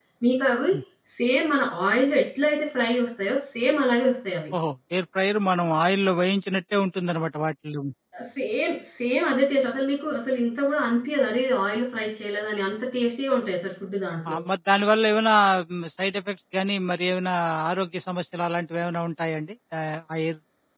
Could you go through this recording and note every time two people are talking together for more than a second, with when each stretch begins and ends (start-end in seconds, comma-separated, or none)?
none